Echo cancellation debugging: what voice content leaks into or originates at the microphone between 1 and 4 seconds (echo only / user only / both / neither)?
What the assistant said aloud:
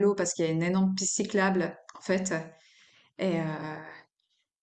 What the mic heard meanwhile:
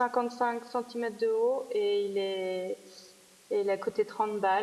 user only